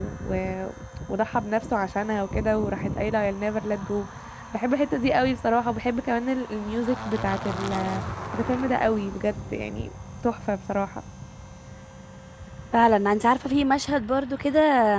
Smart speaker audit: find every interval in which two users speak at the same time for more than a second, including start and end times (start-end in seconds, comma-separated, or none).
none